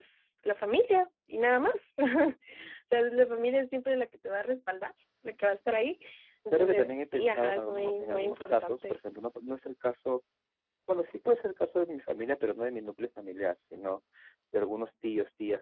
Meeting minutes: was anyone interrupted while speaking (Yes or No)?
Yes